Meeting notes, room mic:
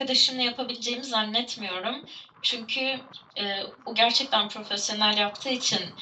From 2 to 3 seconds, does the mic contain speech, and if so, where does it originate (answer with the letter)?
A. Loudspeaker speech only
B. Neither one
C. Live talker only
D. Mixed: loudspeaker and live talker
C